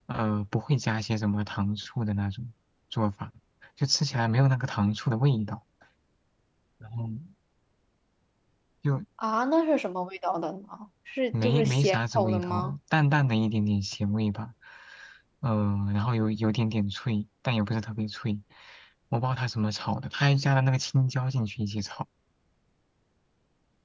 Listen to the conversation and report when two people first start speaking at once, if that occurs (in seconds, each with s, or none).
11.4 s